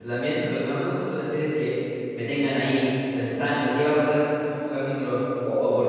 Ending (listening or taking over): listening